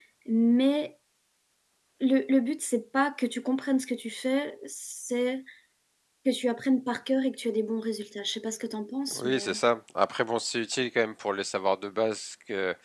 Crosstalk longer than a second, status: none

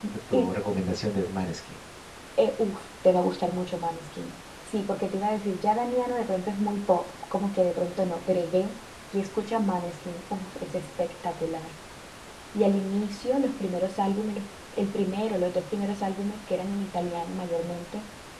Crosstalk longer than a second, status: none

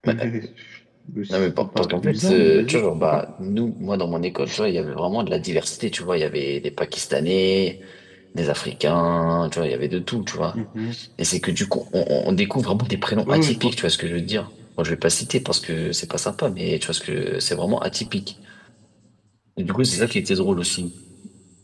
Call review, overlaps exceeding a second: present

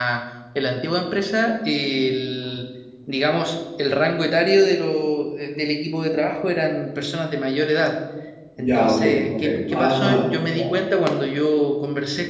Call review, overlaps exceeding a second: present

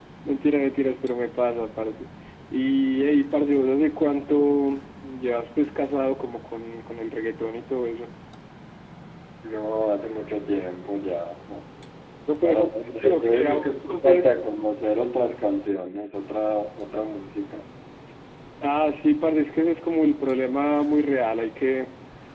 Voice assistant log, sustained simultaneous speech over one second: present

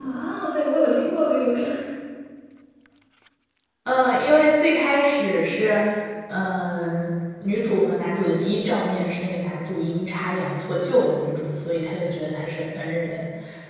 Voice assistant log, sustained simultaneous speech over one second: none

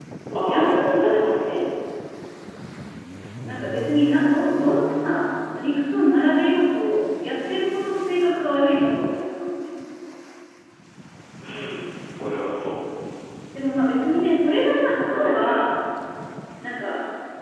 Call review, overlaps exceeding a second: present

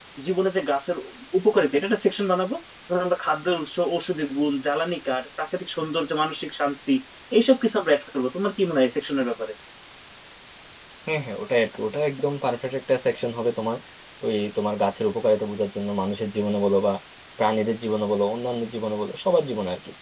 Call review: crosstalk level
none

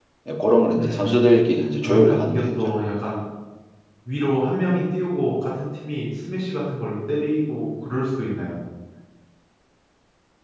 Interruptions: present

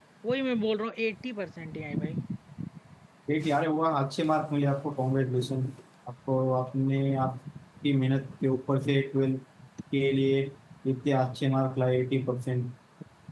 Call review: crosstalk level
none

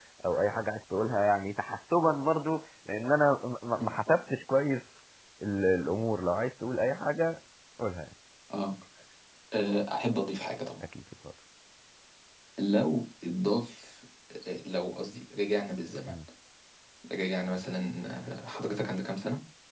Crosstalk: none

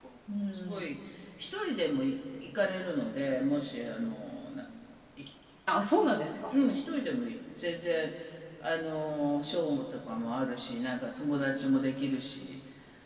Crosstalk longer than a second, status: none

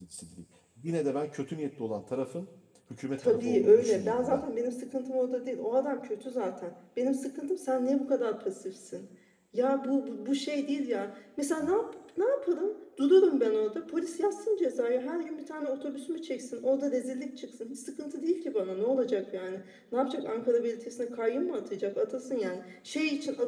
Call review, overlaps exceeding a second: present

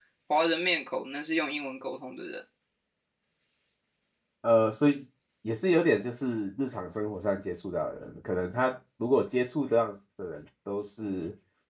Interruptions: none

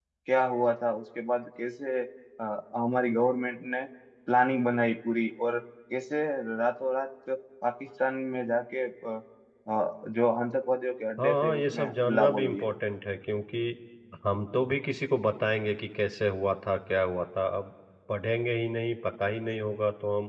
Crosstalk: present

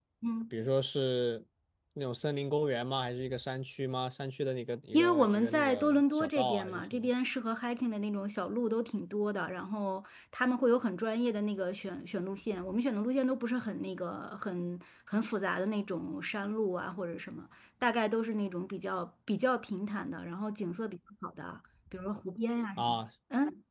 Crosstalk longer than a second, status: present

